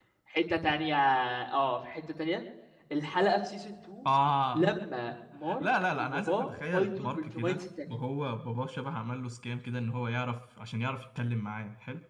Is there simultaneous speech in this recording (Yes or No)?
Yes